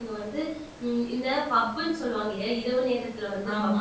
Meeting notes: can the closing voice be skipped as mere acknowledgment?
Yes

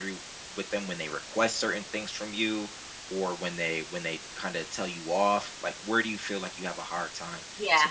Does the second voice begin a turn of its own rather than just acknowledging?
Yes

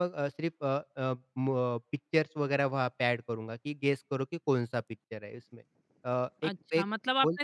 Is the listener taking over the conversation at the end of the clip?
Yes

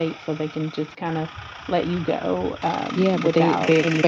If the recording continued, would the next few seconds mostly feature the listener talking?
Yes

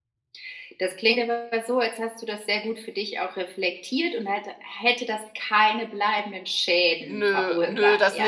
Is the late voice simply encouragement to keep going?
No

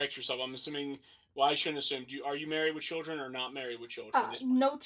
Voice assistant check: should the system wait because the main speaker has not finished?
No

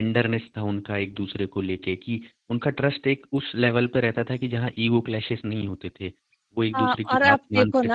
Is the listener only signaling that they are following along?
No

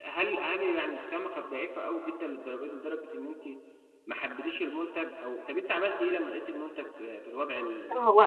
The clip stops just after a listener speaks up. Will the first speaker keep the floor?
No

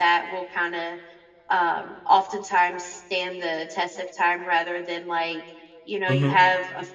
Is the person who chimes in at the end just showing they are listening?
Yes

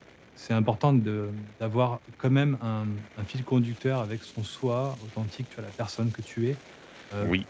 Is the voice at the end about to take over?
No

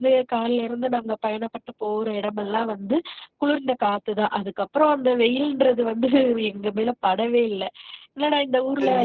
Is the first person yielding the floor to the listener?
Yes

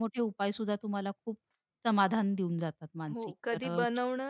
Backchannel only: No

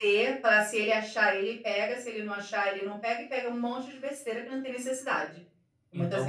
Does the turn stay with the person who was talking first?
No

